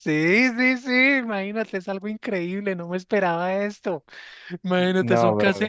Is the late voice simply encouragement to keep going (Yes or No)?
Yes